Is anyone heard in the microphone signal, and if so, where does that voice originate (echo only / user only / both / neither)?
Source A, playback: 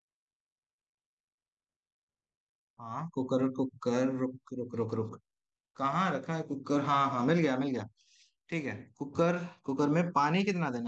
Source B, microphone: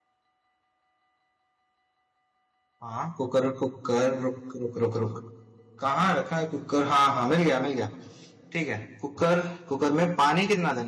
echo only